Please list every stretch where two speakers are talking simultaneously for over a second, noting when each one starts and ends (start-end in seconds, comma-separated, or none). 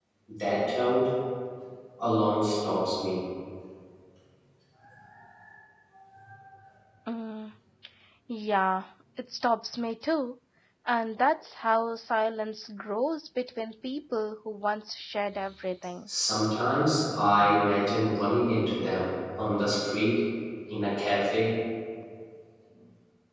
none